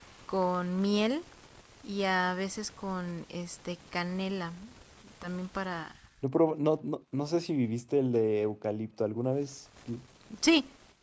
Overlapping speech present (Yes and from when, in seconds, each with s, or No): No